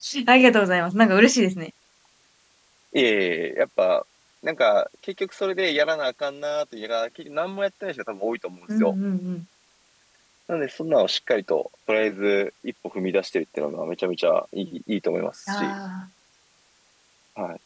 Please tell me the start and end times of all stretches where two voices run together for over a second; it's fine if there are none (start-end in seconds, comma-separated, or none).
none